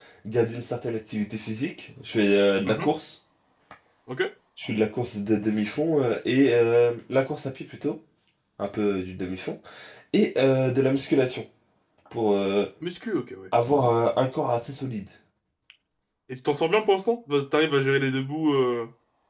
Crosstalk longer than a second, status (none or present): none